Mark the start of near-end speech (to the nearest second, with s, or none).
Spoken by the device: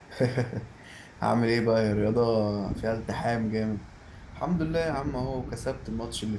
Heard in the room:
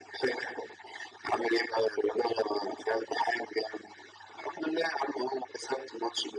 none